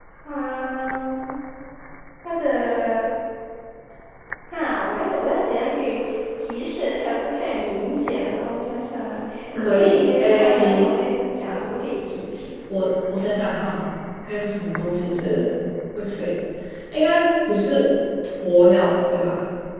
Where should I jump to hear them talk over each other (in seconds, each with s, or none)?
9.6 s